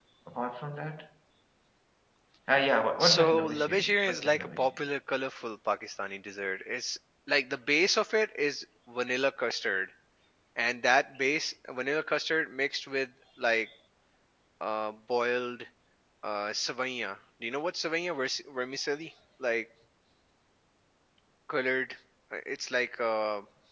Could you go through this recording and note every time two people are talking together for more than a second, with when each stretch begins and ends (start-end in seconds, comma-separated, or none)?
3.0-4.8